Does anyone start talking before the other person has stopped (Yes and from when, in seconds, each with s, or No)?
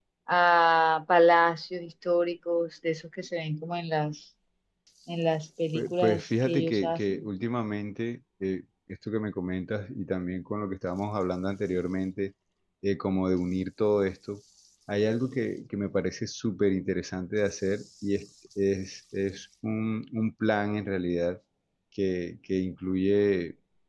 Yes, from 5.7 s